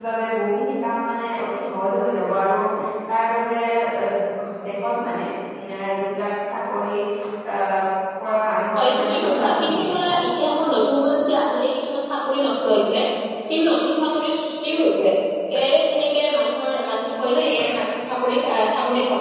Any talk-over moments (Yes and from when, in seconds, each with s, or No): Yes, from 8.8 s